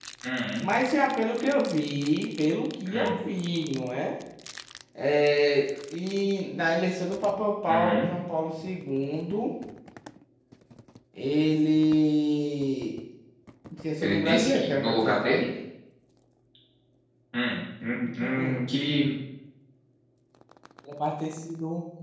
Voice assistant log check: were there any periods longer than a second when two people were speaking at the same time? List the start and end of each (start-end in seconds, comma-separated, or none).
14.0-15.5